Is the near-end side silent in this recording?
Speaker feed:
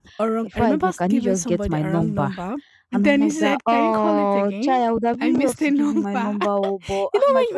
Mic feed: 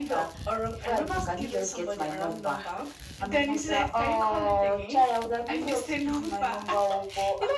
Yes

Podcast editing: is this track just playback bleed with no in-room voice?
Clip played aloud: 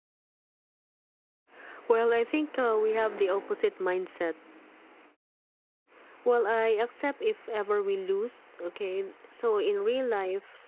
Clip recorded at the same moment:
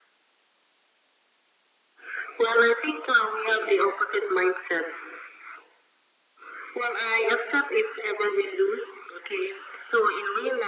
Yes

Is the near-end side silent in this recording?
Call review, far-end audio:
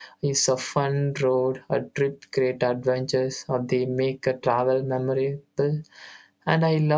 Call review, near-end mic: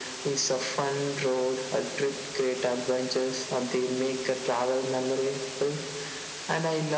Yes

